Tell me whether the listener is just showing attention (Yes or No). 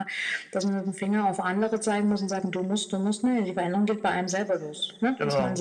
Yes